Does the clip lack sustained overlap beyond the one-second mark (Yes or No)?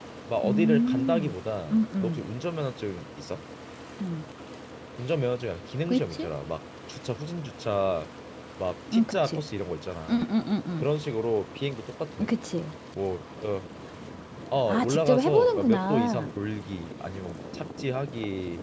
No